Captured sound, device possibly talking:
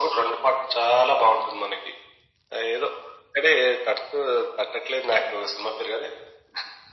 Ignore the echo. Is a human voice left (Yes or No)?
No